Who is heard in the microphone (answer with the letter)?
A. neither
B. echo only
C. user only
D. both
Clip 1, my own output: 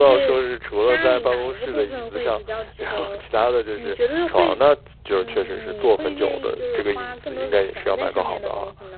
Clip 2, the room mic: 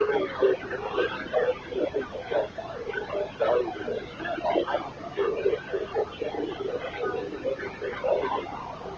B